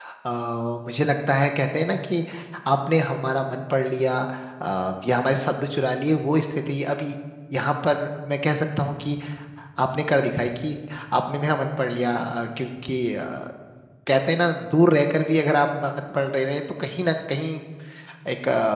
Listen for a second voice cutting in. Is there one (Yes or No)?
No